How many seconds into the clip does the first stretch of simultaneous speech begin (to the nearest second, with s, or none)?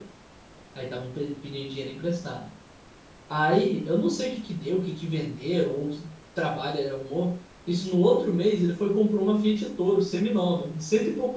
none